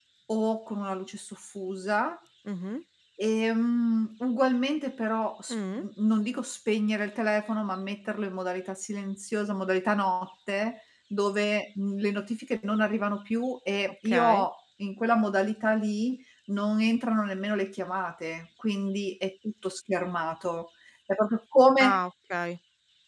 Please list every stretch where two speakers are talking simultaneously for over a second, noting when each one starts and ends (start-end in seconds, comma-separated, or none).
none